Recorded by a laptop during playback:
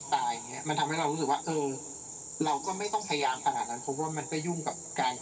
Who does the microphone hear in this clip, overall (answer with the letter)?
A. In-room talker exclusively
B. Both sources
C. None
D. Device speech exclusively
D